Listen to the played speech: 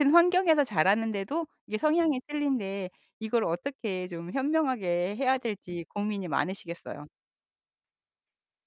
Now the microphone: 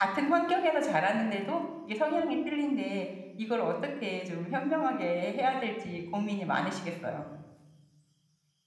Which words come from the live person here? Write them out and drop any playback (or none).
none